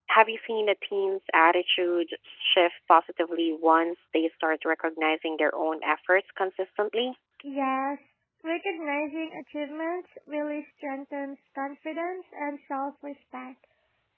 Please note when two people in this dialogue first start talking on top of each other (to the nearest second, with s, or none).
none